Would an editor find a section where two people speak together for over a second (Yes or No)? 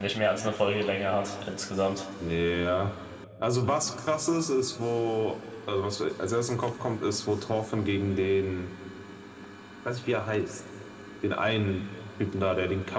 No